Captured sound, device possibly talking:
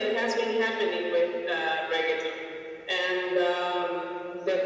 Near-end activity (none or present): none